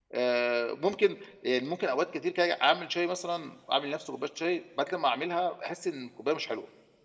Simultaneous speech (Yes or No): No